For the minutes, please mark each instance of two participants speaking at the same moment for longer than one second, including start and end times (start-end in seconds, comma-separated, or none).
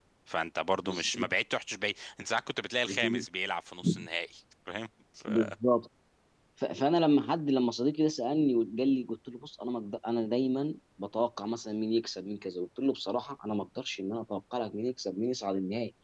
none